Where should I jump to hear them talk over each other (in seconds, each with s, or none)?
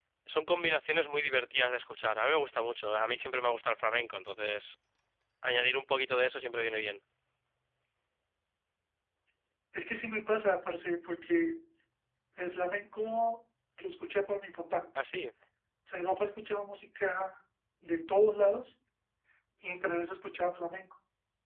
none